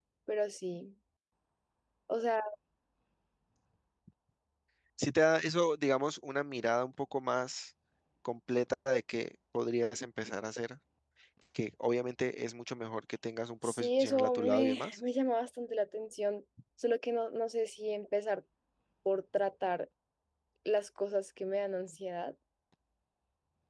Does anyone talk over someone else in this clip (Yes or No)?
Yes